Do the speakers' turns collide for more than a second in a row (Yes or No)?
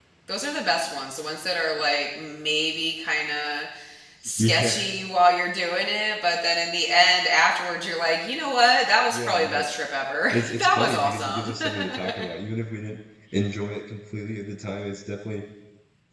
Yes